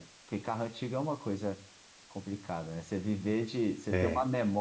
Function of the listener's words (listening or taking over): listening